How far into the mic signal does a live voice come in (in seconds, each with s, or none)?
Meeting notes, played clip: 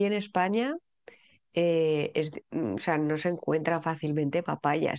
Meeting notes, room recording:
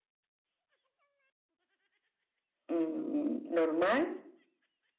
2.7 s